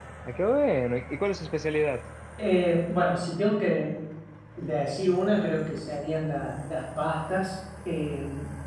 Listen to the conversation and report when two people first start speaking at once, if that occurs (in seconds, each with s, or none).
none